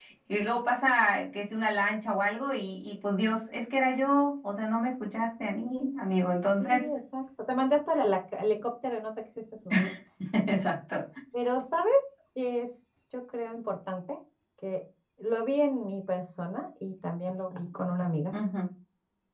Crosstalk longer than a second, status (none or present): none